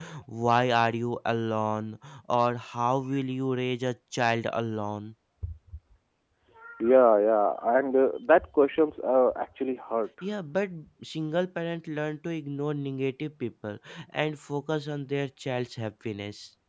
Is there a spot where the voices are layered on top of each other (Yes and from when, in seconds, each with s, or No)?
No